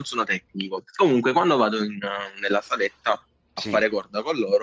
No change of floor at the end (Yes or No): Yes